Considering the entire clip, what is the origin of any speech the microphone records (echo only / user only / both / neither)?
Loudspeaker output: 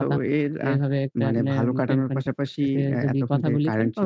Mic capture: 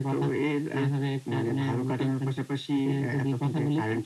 echo only